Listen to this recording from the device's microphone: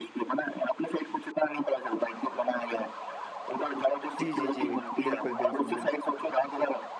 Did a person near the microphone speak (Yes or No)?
Yes